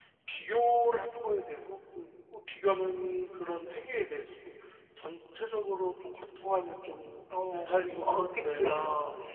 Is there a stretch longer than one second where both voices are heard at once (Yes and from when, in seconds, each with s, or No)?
Yes, from 7.3 s